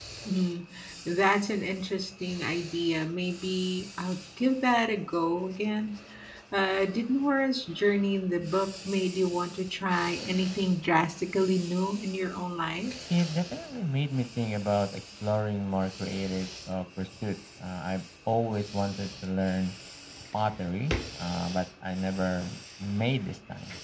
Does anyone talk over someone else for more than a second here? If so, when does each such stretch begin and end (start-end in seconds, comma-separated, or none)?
none